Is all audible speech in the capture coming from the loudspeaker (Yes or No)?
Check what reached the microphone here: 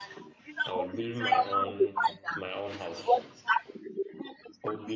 No